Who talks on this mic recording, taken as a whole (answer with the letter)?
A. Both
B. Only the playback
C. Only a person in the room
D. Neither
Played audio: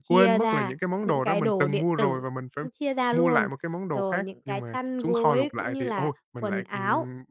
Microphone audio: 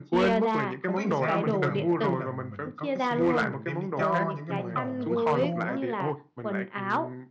A